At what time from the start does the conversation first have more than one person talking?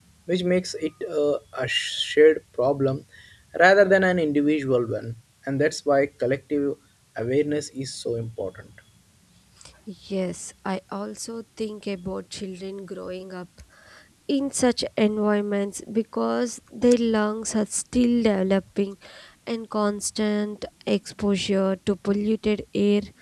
none

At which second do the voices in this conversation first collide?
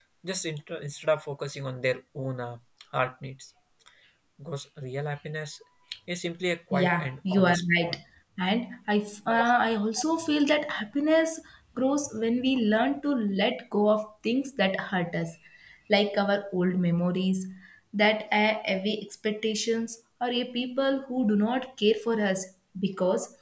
6.7 s

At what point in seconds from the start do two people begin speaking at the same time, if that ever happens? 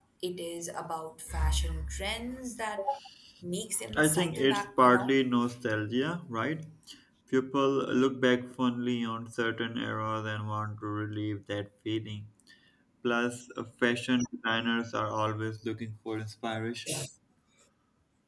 3.9 s

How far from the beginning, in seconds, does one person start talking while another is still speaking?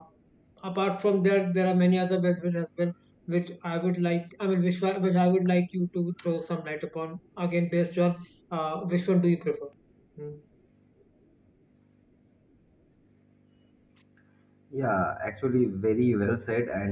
none

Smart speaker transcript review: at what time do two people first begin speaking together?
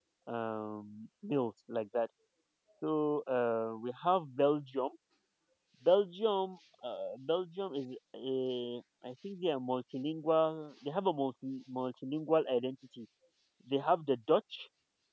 none

